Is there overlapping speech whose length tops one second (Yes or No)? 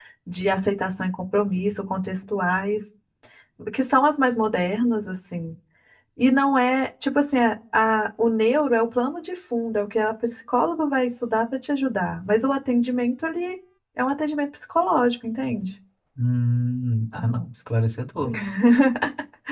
No